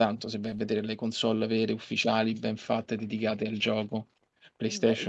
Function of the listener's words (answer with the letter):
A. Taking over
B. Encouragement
A